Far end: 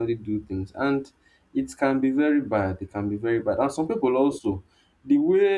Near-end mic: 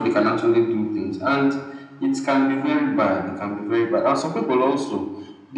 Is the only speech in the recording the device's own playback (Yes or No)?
Yes